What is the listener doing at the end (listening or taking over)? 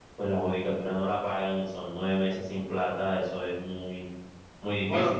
taking over